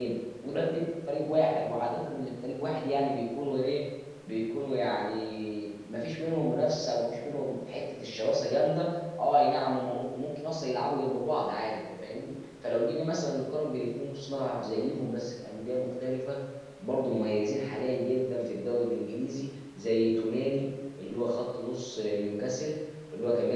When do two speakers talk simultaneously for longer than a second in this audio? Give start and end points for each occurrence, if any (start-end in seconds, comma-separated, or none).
none